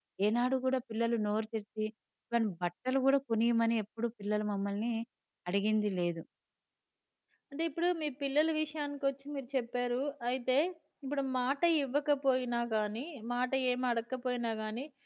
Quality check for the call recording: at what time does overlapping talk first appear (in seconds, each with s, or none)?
none